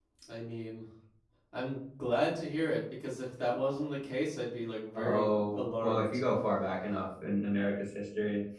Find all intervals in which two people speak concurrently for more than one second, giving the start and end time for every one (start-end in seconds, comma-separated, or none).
4.9-6.2